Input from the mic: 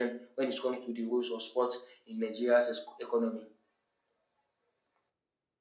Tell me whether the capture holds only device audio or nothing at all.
Yes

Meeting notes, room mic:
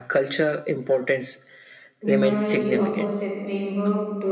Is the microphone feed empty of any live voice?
No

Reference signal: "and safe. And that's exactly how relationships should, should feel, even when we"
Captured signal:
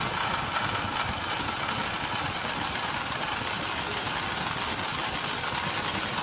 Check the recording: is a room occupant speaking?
No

